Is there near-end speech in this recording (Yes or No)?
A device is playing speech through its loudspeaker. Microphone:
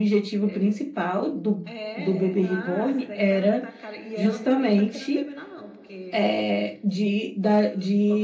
Yes